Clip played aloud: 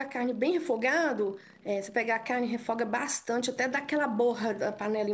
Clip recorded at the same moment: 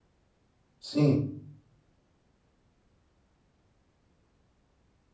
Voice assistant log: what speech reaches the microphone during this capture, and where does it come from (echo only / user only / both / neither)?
user only